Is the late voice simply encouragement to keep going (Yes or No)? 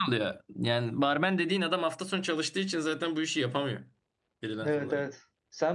No